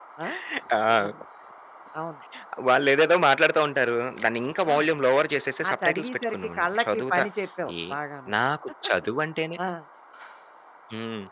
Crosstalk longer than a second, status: present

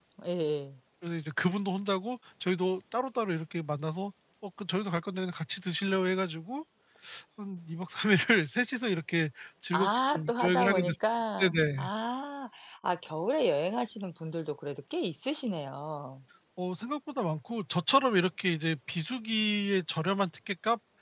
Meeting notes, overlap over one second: present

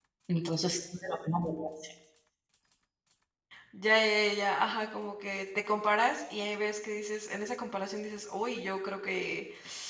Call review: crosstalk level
none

